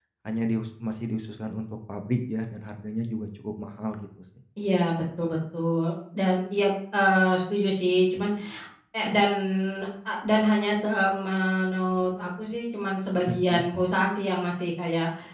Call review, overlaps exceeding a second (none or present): none